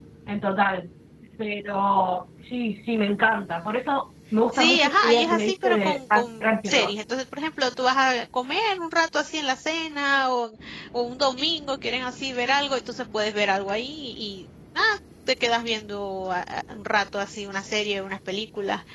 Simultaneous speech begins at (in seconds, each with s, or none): 4.5 s